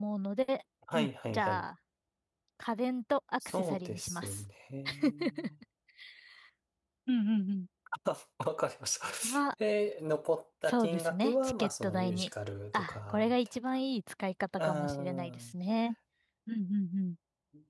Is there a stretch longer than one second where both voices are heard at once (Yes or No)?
Yes